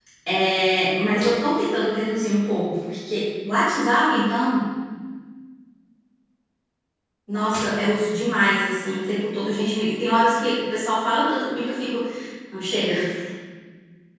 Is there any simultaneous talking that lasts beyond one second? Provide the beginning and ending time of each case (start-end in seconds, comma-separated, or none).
none